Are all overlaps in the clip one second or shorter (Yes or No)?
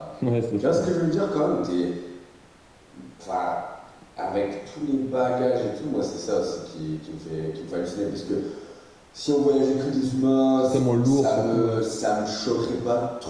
No